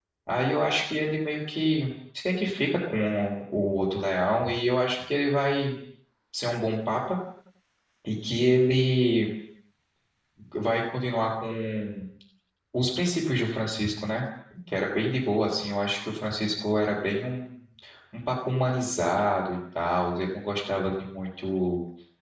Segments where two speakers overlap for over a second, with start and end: none

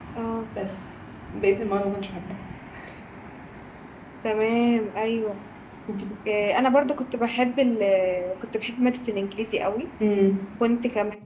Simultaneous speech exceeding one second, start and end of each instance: none

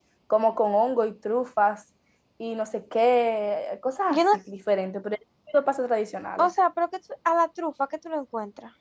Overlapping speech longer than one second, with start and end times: none

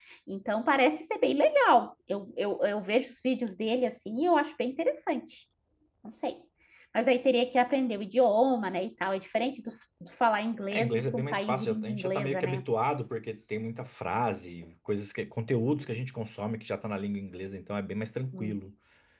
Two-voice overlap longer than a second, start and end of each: 10.7-12.6

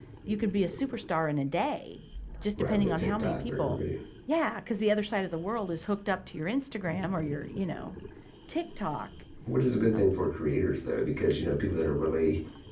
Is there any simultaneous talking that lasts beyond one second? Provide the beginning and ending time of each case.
2.6-3.8

